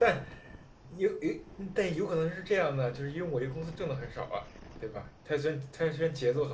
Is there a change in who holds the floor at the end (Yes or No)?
Yes